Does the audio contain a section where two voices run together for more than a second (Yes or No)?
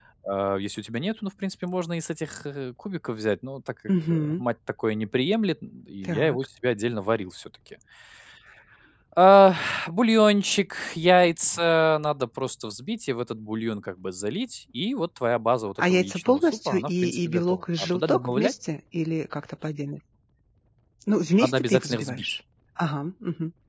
Yes